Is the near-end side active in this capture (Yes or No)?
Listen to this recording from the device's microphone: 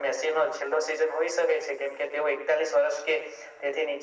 No